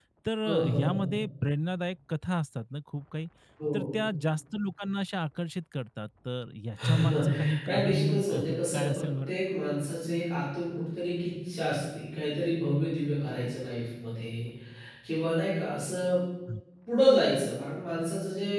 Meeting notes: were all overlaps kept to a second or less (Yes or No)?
No